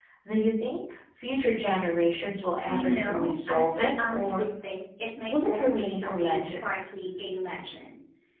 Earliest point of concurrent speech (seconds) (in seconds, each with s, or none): 2.7 s